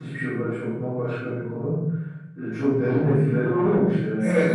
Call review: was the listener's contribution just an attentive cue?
No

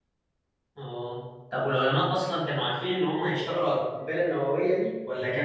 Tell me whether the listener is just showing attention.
Yes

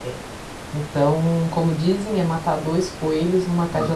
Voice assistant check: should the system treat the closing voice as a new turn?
Yes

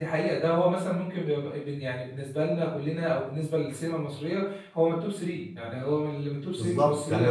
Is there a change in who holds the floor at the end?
Yes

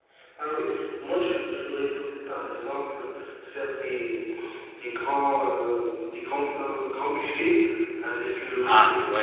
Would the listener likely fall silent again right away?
Yes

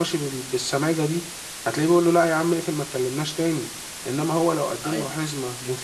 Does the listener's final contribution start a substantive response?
No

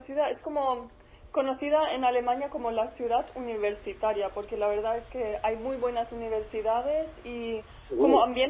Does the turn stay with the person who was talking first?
Yes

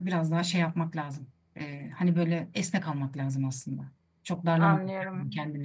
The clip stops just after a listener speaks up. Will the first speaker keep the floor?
No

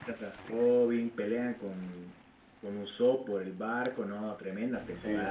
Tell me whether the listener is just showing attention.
No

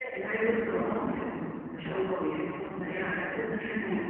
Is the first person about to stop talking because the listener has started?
Yes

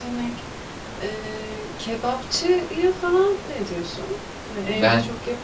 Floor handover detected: No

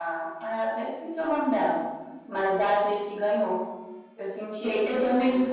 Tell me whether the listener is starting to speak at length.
Yes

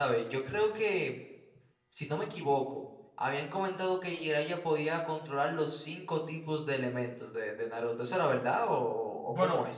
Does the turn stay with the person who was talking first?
No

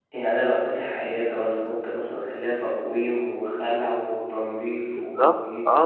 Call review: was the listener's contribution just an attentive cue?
No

